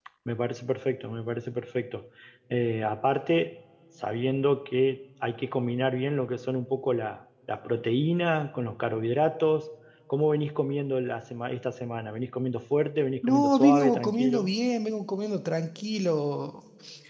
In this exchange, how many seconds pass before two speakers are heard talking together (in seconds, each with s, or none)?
13.2 s